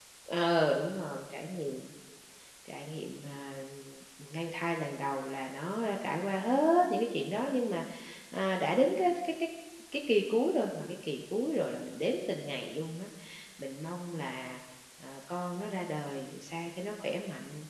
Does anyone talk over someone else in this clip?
No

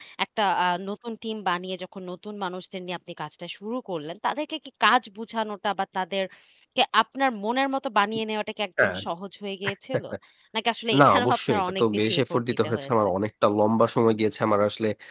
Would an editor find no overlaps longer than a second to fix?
No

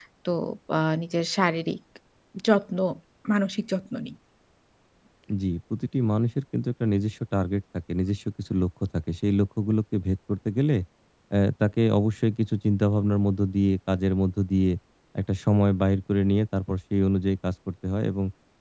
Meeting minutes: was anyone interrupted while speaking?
No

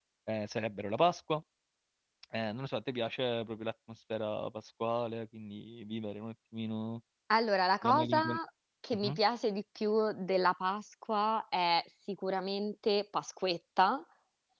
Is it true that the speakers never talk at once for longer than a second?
Yes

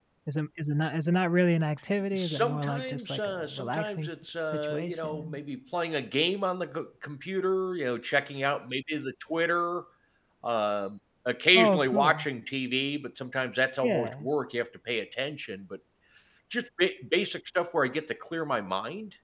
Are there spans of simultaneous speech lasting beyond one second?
Yes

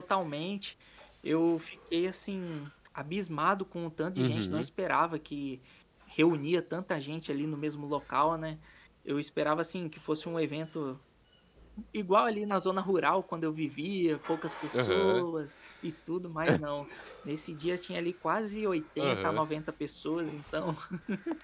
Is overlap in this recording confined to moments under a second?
Yes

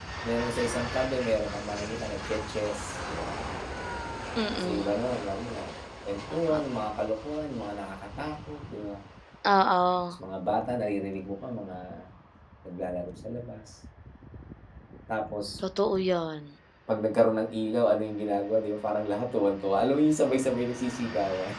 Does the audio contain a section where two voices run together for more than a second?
No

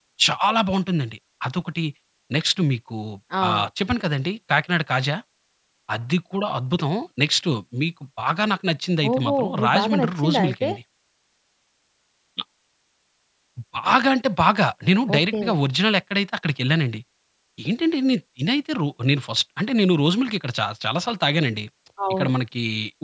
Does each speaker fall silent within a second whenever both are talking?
No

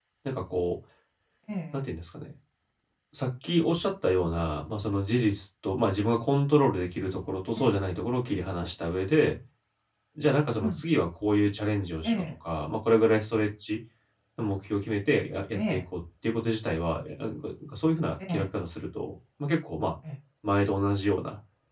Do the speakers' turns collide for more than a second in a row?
No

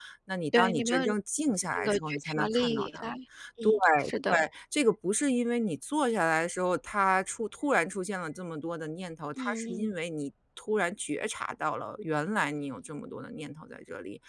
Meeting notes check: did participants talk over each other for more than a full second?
Yes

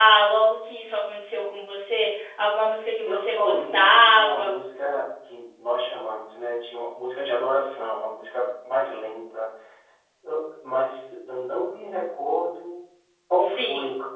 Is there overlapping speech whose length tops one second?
Yes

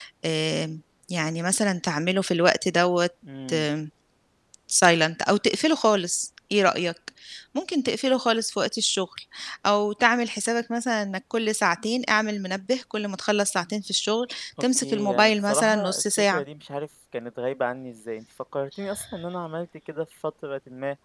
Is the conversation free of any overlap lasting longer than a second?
No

